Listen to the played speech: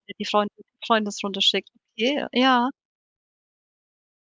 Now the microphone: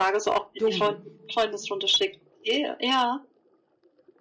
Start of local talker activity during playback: 1 s

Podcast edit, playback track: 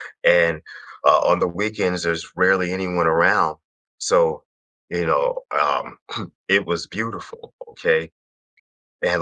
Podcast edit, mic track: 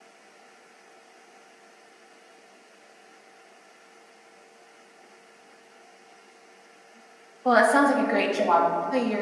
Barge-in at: 7 s

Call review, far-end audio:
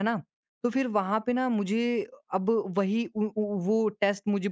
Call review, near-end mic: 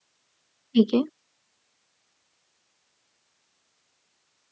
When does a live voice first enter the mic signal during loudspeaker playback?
1 s

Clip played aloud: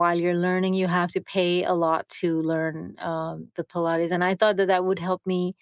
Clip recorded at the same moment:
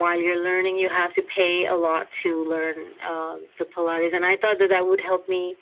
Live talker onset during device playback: none

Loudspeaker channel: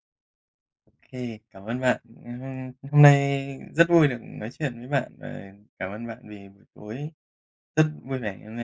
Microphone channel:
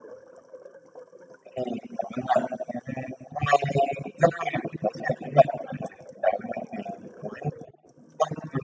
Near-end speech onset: none

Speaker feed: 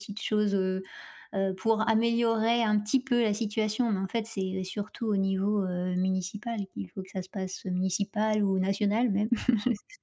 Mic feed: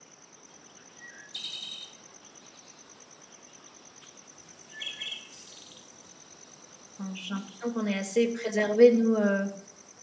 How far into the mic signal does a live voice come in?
7 s

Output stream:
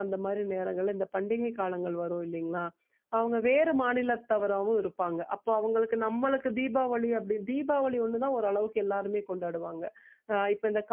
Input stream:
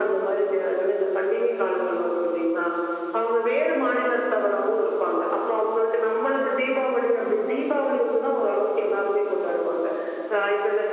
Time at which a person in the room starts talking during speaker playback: none

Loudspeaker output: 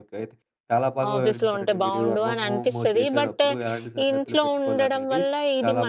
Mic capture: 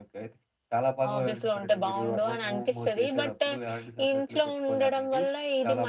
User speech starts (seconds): none

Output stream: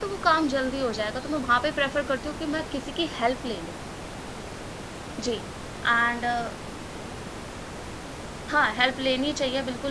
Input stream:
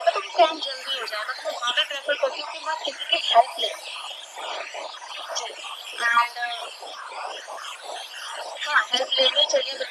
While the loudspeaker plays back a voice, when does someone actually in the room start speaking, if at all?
none

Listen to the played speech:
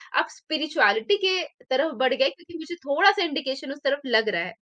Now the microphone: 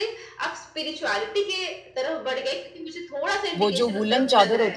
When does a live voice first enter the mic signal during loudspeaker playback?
4 s

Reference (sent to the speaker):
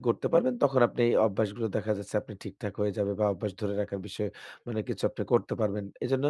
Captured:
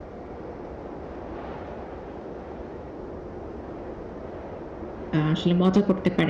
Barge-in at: 5 s

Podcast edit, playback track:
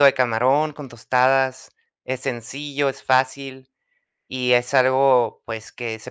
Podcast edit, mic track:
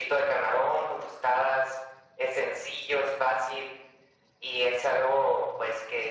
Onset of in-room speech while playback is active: none

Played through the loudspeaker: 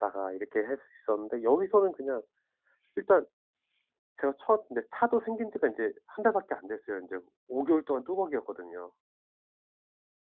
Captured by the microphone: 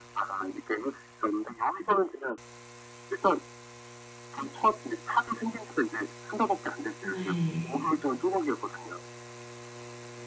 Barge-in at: 7 s

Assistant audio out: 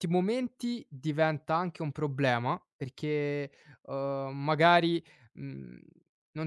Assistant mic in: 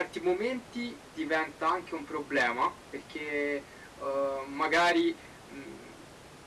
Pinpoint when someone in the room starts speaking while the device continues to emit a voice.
none

